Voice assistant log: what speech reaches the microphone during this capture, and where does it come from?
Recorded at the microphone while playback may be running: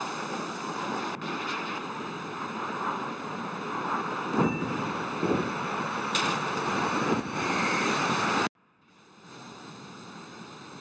neither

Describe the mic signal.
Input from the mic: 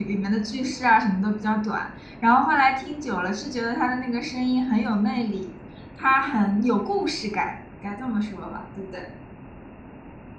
user only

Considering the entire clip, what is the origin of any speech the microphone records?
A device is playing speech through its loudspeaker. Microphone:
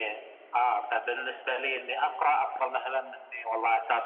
echo only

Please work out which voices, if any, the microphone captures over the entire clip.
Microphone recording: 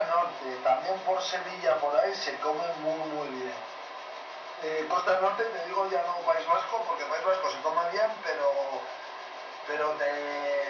echo only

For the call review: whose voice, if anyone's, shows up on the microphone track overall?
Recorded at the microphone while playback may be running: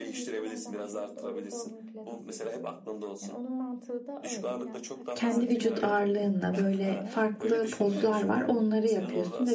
both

